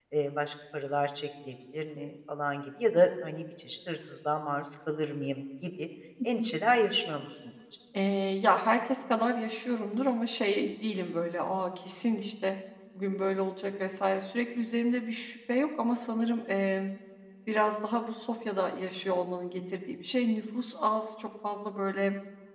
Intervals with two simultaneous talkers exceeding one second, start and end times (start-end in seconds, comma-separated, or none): none